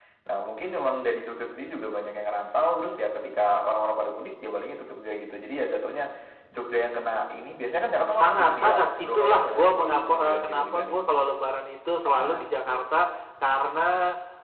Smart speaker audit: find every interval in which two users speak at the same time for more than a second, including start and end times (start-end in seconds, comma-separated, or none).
8.1-11.1